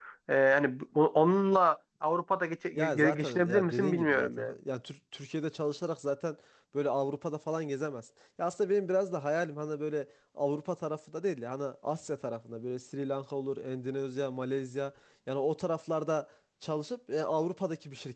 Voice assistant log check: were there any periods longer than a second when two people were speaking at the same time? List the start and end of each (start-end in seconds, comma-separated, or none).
2.7-4.6